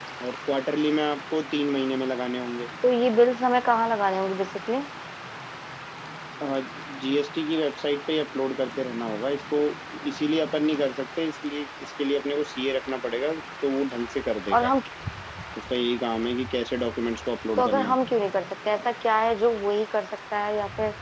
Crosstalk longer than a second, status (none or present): none